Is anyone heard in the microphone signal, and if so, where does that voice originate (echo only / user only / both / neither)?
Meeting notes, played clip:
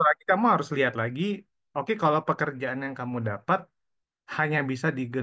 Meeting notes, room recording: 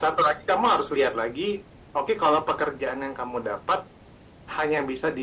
echo only